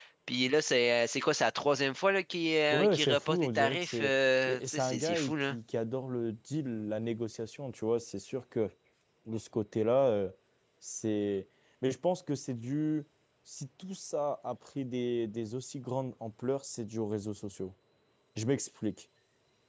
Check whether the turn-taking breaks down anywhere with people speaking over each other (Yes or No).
Yes